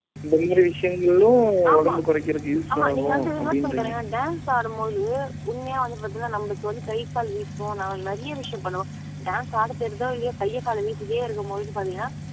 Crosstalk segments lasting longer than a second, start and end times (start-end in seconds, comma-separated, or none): 2.7-3.9